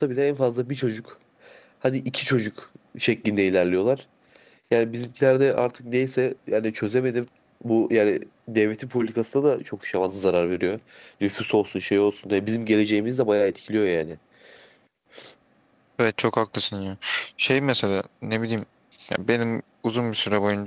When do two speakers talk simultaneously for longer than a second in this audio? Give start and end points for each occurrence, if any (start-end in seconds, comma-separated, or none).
none